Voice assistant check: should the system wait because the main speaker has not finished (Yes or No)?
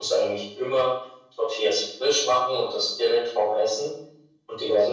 Yes